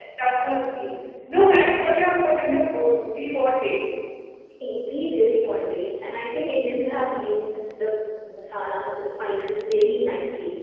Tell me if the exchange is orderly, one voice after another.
Yes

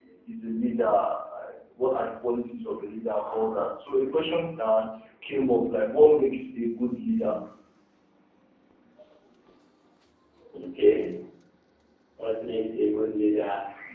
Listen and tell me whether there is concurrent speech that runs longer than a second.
No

